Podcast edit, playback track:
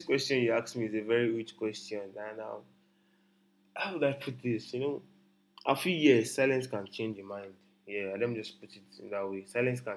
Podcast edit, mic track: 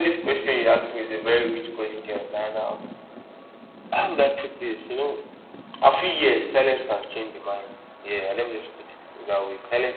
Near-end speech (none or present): none